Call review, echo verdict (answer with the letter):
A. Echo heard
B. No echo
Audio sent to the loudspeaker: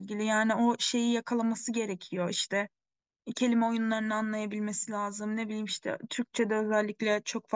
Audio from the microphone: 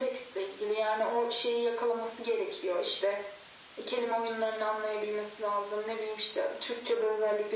A